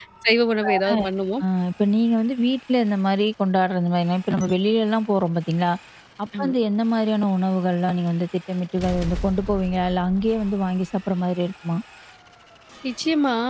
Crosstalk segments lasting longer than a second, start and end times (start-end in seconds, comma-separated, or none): none